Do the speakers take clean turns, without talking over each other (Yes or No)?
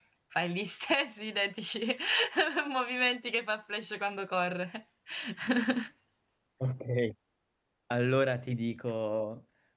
Yes